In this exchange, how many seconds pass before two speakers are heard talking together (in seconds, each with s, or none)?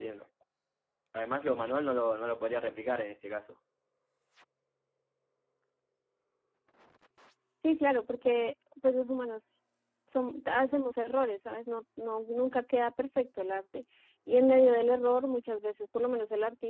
none